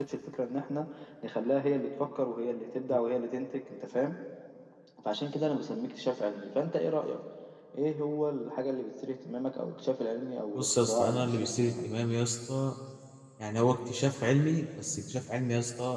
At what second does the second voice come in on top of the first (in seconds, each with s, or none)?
10.6 s